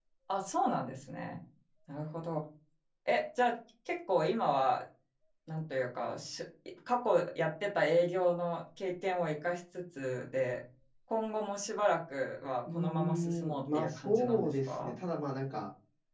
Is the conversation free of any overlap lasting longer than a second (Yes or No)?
No